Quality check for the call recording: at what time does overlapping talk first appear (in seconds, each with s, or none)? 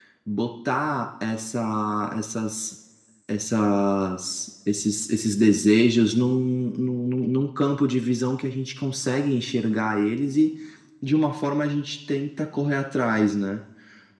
none